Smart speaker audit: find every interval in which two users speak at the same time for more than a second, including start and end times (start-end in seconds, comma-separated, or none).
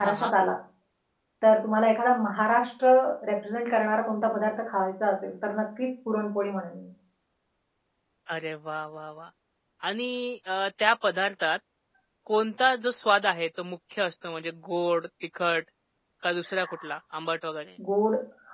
none